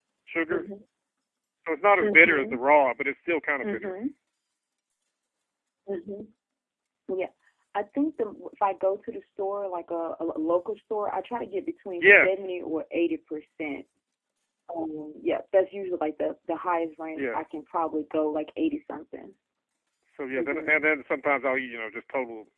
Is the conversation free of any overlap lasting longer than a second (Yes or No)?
Yes